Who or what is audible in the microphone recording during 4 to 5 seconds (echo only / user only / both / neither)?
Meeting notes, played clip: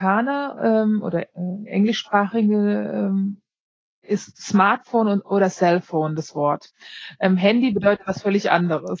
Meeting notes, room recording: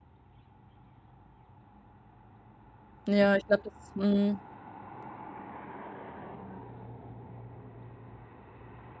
user only